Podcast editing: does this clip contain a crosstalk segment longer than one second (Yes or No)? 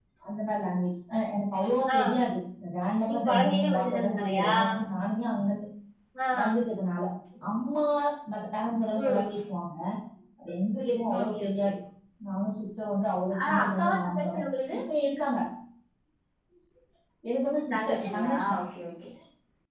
Yes